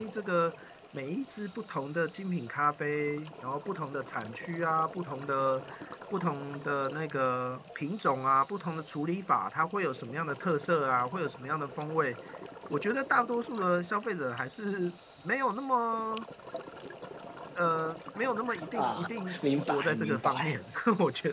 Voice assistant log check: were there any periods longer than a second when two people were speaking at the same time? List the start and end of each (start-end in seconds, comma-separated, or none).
18.7-20.4